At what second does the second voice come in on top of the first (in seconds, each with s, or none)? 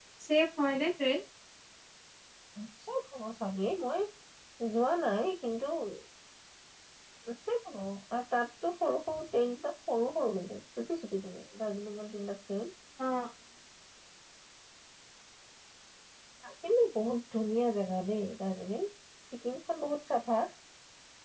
none